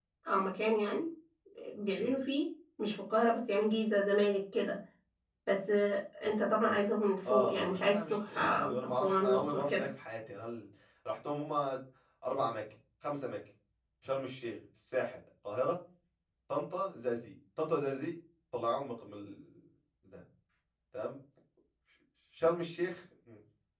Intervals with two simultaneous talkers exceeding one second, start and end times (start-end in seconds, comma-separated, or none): 7.3-9.9